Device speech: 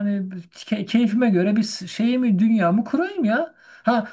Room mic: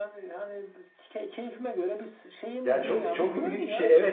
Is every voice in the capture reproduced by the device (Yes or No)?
No